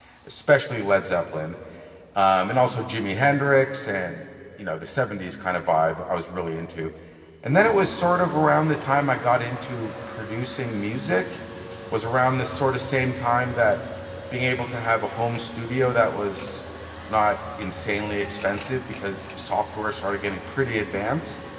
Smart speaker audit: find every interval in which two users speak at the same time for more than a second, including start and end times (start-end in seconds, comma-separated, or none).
none